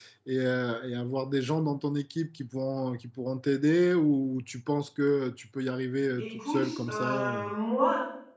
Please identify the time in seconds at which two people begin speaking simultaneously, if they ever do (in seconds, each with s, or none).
6.0 s